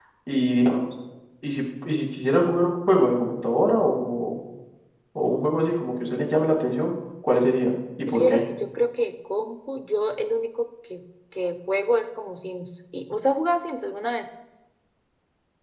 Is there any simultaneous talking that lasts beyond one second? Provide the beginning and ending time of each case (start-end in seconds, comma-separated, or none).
none